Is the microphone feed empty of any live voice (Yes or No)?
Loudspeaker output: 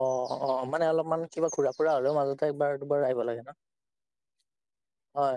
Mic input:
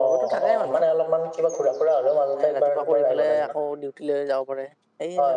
No